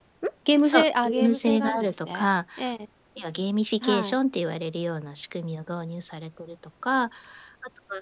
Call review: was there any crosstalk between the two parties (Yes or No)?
Yes